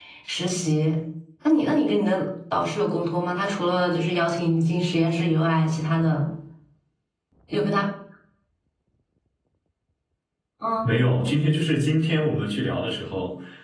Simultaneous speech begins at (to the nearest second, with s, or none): none